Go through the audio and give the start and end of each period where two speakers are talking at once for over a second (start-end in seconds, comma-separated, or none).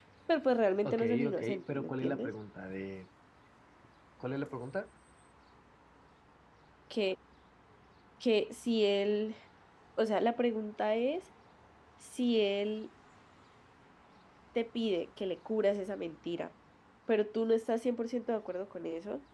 0.8-2.3